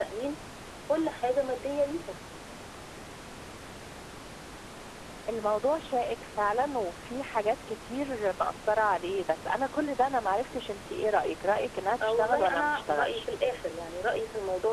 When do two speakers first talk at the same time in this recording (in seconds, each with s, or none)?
12.0 s